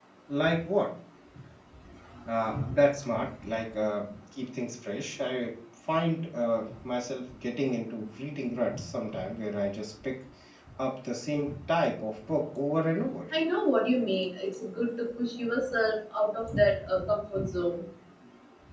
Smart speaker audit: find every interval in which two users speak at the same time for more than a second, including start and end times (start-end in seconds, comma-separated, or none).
none